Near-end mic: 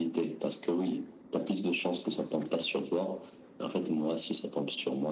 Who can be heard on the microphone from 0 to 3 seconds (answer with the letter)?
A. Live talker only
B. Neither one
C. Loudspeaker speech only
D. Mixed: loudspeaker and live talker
C